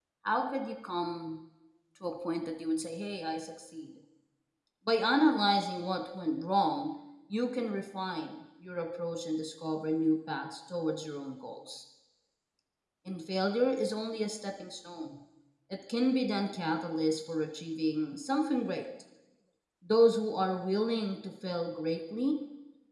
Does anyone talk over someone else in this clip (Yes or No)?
No